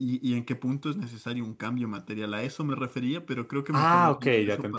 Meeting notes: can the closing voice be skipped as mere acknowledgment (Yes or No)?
No